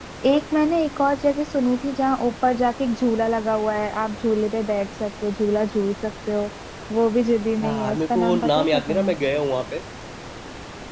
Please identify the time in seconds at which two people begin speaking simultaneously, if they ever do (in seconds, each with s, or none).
7.6 s